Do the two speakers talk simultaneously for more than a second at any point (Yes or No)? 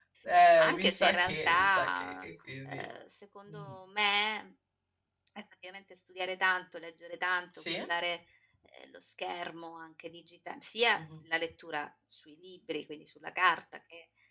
Yes